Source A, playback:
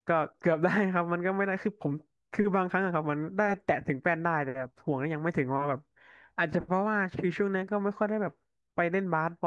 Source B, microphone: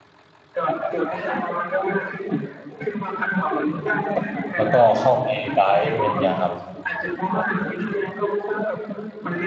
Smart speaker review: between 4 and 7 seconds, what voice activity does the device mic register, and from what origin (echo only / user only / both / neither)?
both